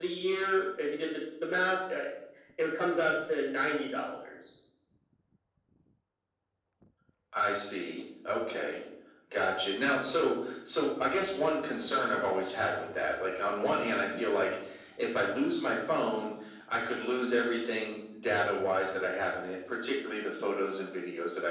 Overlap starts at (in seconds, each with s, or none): none